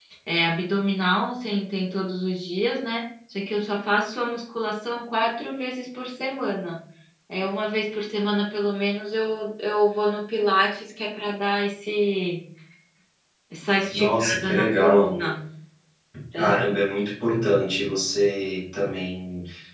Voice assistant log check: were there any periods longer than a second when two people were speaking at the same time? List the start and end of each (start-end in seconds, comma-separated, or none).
13.9-15.1